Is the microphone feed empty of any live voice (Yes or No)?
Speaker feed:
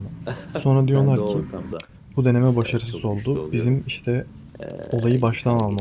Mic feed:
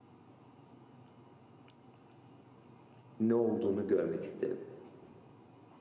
No